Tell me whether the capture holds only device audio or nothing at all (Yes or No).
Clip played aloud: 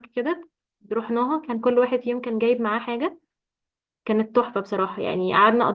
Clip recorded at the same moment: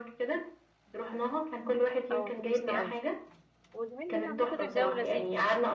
No